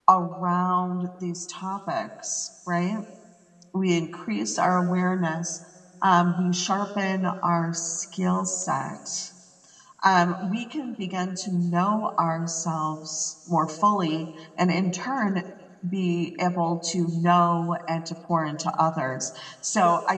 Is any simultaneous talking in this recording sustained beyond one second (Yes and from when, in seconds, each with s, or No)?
No